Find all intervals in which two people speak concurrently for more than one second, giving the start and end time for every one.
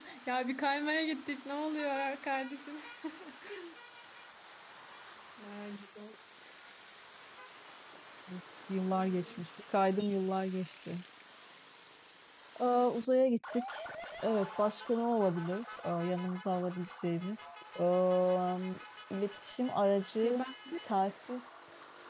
none

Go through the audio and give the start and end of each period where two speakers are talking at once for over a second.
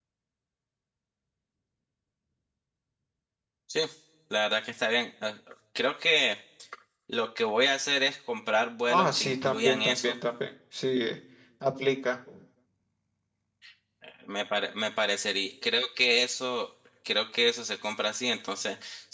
8.9-10.2

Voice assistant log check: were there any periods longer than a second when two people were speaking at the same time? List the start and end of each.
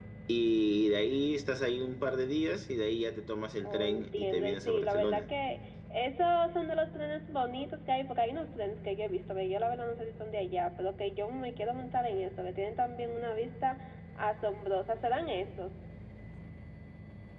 3.6-5.2

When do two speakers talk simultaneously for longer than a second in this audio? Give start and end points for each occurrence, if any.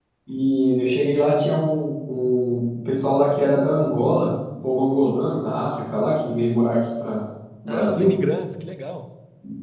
none

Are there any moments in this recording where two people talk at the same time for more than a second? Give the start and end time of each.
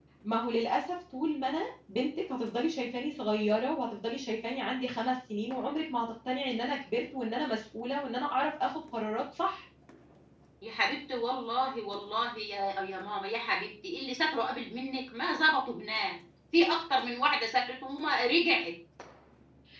none

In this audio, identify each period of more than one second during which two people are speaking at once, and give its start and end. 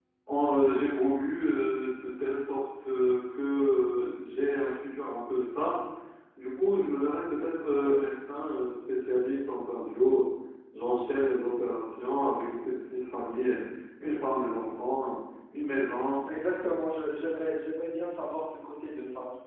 none

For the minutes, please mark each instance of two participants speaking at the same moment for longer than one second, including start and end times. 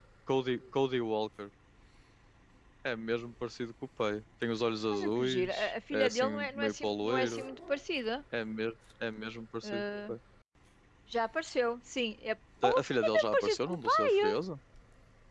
4.9-7.4, 12.6-14.1

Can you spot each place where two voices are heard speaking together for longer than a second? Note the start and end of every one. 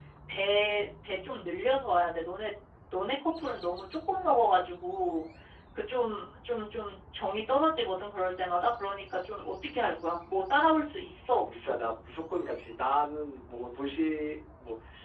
none

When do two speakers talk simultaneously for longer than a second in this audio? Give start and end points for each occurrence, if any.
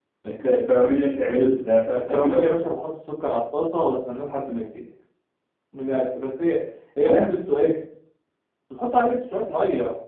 none

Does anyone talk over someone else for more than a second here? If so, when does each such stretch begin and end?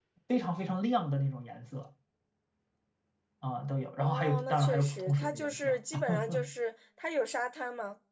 4.0-5.7

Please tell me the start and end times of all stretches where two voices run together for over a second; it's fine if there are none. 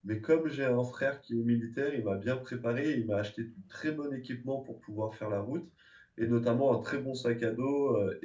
none

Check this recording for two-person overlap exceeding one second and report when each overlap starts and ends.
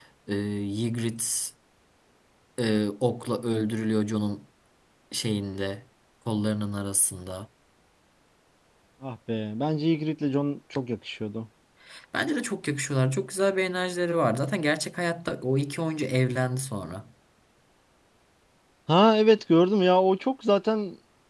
none

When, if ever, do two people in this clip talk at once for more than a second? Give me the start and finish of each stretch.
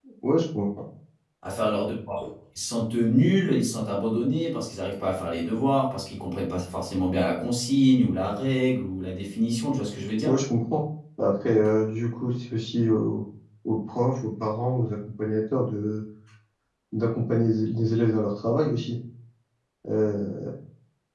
none

